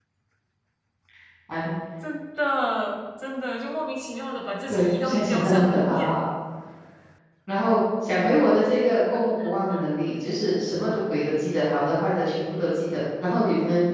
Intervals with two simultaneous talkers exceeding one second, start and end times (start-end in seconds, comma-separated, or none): 4.7-6.2